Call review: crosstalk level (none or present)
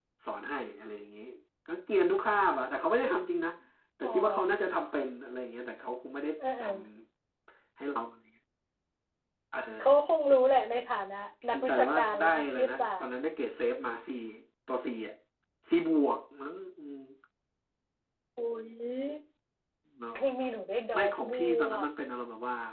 present